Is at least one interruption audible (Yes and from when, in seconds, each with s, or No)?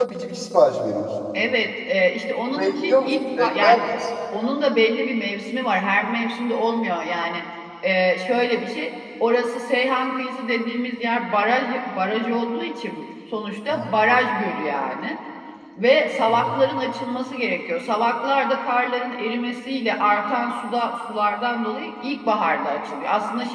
Yes, from 2.5 s